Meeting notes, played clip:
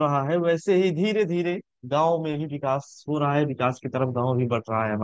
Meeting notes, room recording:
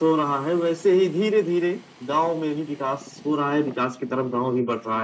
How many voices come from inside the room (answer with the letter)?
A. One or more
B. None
B